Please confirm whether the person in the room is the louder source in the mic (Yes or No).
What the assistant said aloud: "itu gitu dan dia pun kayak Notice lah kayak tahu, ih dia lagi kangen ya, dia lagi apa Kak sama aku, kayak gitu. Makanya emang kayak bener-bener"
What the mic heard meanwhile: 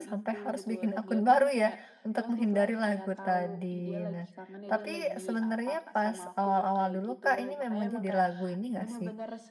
Yes